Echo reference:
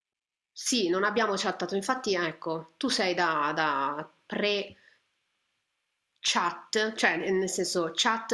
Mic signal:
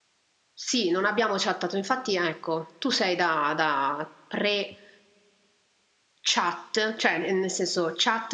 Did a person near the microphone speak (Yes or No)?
No